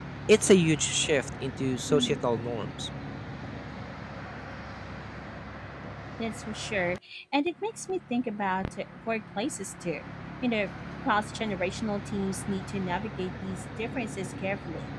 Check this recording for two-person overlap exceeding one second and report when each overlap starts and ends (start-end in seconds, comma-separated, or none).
none